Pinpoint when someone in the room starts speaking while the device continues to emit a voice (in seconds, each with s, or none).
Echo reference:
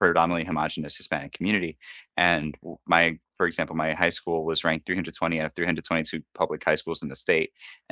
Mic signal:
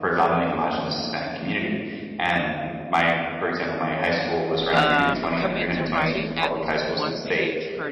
4.7 s